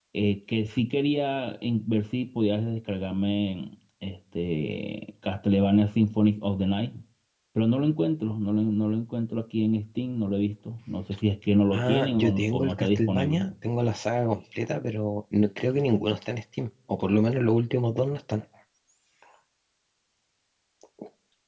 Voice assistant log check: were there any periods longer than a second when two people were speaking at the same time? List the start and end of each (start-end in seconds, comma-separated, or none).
11.7-13.4